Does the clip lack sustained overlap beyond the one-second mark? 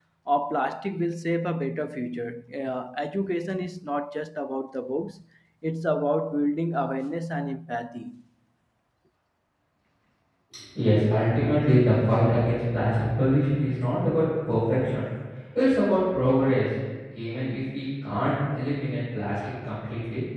Yes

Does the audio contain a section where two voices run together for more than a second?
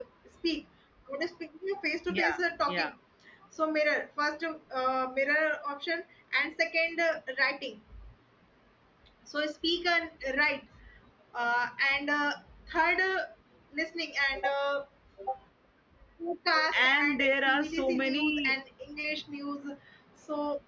Yes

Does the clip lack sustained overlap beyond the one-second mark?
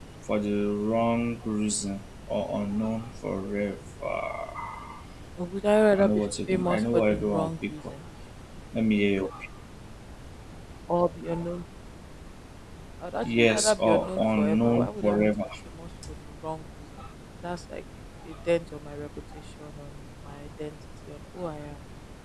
No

